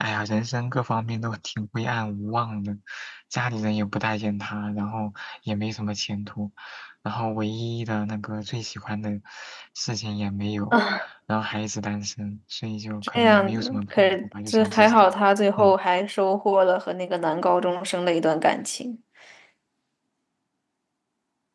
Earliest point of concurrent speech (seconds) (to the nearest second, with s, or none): 13 s